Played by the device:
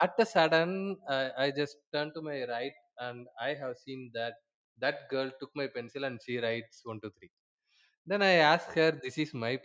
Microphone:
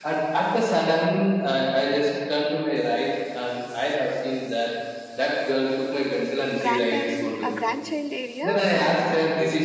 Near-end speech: present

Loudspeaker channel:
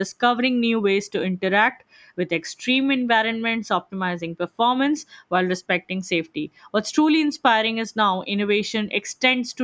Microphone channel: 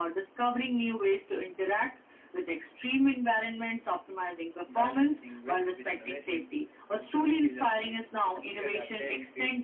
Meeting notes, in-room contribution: present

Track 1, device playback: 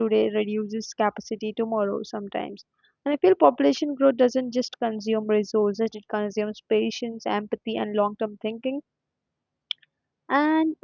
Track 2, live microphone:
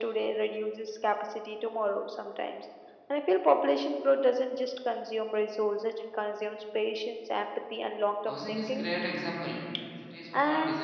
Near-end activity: present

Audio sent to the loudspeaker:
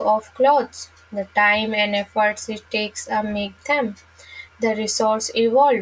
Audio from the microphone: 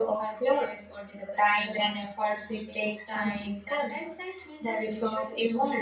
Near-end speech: present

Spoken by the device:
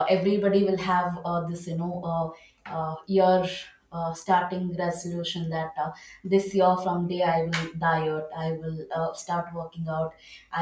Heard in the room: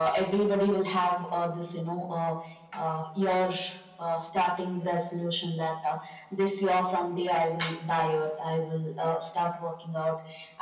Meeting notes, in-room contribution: none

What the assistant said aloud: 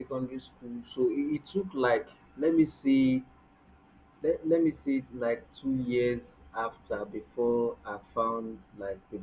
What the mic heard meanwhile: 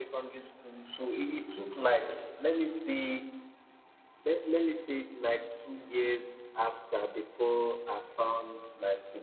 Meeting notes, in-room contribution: none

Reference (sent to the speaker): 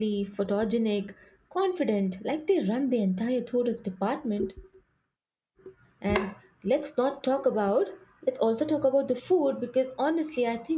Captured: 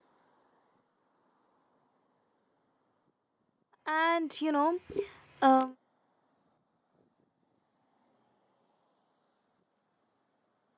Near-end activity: present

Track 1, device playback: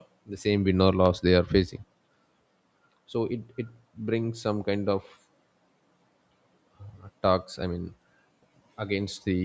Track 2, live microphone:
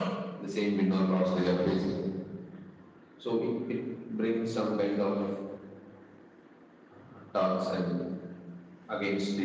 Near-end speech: none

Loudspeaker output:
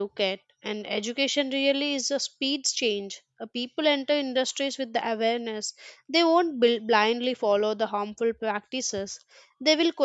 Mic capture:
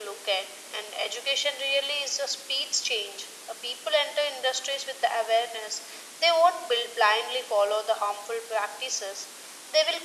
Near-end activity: none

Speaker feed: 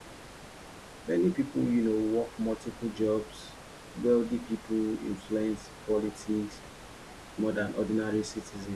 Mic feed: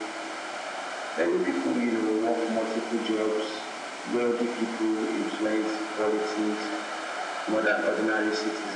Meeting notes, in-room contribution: none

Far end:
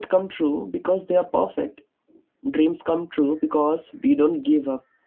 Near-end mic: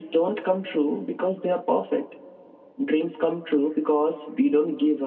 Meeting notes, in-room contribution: none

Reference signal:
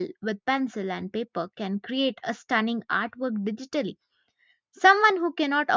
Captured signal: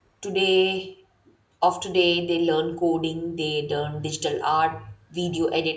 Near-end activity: present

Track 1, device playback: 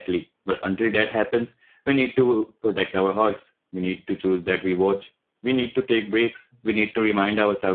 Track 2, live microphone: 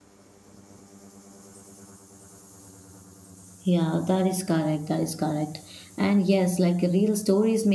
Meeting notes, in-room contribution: present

